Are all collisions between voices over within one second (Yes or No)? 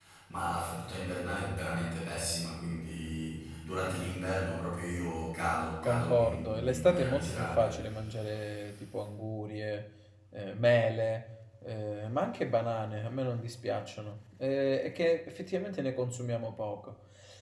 No